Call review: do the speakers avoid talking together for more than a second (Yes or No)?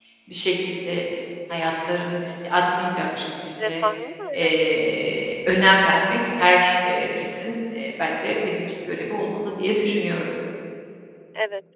Yes